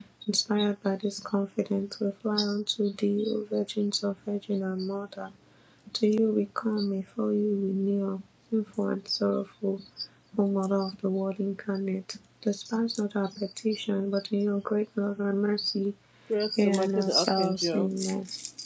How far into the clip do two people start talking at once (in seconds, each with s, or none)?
16.6 s